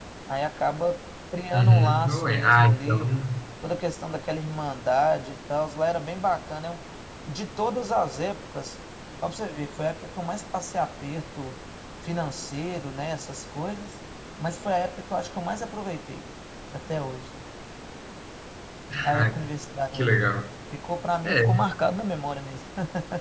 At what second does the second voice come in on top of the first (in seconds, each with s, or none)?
1.5 s